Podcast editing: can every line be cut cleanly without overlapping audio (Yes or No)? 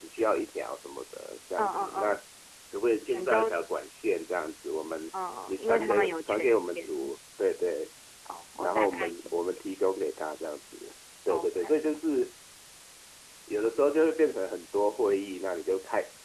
No